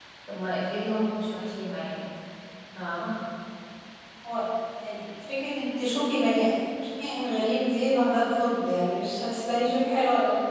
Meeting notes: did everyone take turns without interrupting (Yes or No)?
Yes